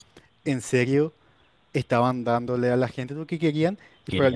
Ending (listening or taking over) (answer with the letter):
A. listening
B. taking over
A